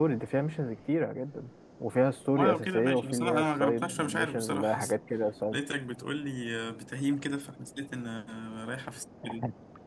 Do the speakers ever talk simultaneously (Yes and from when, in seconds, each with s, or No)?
Yes, from 2.3 s